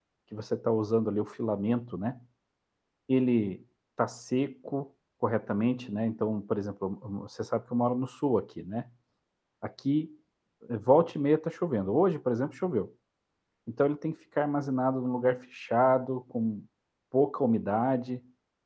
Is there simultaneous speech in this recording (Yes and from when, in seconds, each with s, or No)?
No